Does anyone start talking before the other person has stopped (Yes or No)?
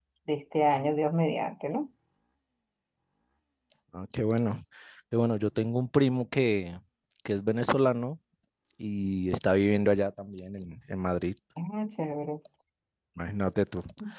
No